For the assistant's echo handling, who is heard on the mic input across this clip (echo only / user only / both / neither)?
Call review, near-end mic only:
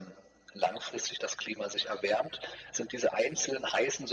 echo only